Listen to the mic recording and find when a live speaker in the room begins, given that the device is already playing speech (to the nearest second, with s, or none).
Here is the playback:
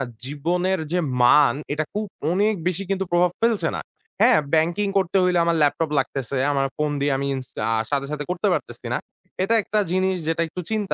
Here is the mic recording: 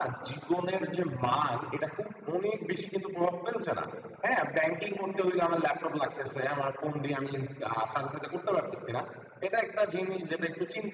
none